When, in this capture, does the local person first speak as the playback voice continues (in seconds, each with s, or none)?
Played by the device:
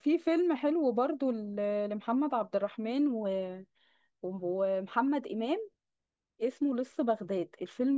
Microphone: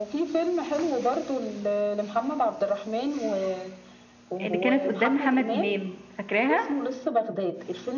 4.5 s